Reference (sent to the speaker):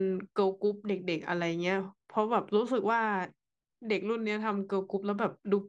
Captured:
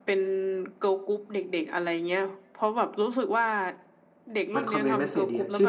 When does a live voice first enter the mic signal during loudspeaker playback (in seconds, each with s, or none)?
4.5 s